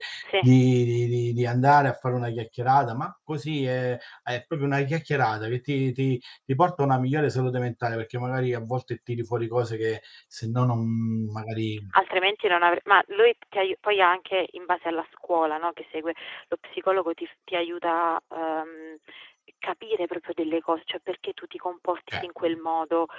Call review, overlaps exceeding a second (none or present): none